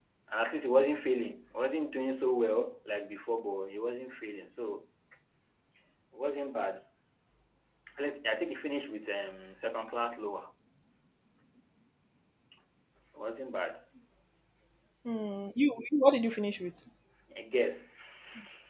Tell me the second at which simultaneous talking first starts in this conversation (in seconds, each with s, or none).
none